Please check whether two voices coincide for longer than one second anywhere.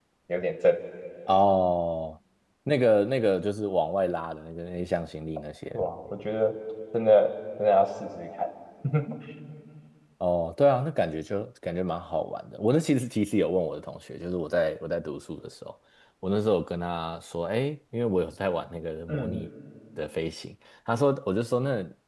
No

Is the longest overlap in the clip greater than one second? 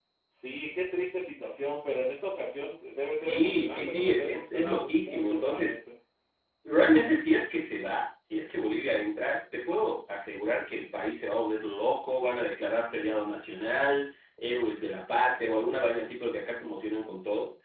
Yes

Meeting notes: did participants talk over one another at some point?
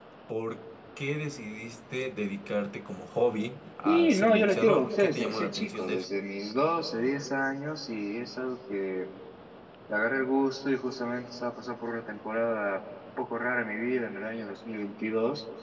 Yes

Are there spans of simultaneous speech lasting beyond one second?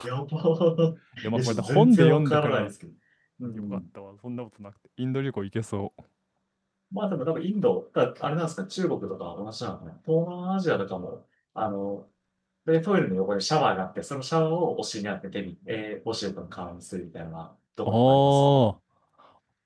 Yes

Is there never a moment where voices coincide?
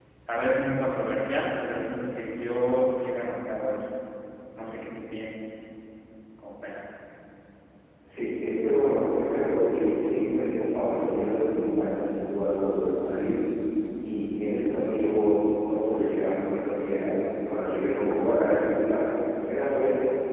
Yes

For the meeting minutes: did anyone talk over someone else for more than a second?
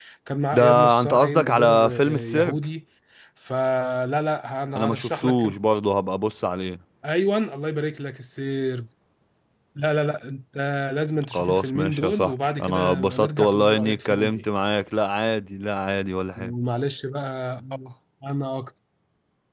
Yes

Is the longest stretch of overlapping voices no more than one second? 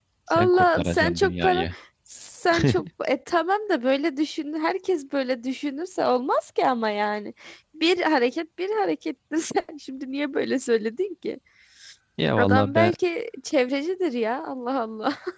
No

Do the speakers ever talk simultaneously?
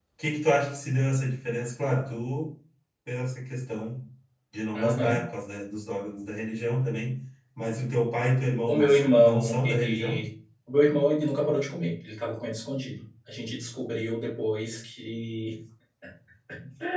Yes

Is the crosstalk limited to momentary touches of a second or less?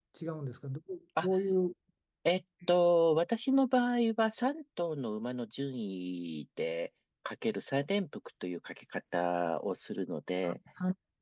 Yes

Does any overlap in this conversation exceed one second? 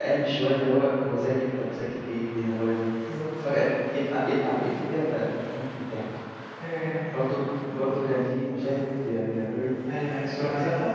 No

